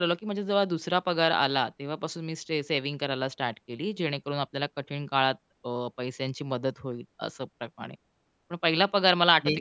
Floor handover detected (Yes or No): No